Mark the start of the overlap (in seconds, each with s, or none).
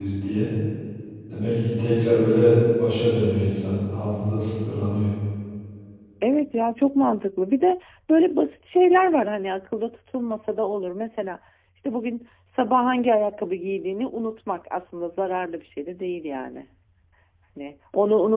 none